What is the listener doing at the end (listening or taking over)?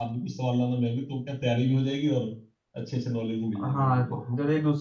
taking over